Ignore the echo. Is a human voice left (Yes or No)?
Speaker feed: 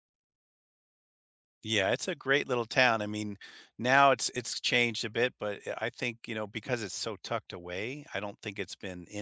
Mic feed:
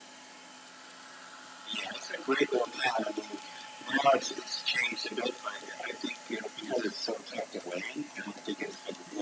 No